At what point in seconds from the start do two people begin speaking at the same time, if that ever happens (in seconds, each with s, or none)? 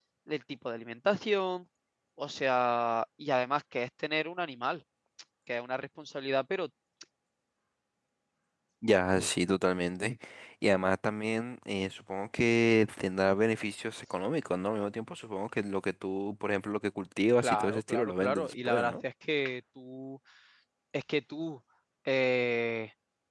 17.4 s